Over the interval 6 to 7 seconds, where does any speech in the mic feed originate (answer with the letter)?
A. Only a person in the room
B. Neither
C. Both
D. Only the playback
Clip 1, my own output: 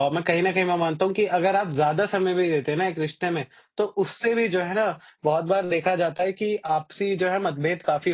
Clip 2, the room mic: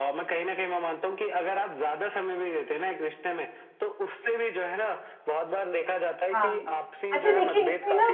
C